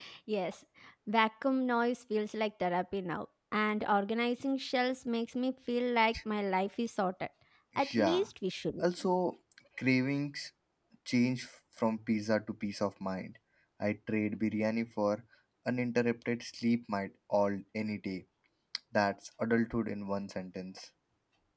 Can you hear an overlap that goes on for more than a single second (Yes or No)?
No